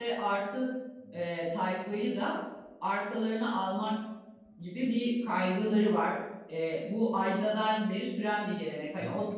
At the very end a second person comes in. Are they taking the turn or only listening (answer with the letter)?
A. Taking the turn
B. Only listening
B